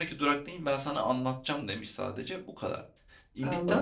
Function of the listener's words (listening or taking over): listening